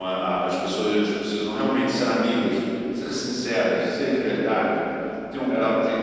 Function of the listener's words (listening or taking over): listening